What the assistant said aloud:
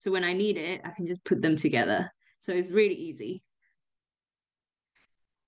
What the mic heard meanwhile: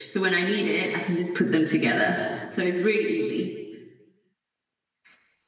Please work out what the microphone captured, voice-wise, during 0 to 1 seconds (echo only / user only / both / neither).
echo only